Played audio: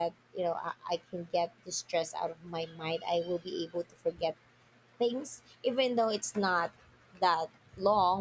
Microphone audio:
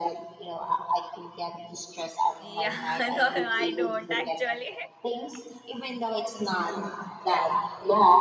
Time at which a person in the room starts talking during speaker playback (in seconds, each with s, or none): 2.4 s